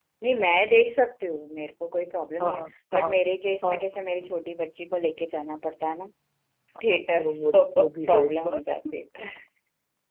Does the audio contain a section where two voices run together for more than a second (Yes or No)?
Yes